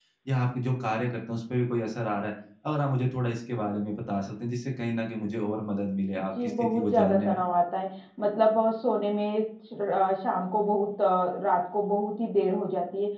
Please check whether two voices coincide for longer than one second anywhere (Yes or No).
Yes